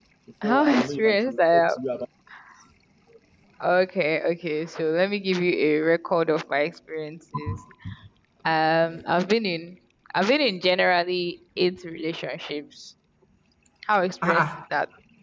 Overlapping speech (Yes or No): Yes